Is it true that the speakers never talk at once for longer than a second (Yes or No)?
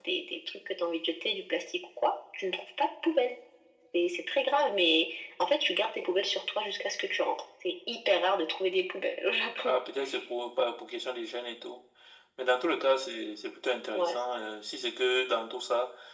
Yes